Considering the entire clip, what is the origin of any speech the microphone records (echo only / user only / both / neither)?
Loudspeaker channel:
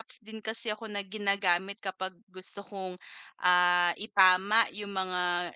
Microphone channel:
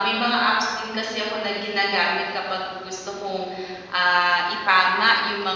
echo only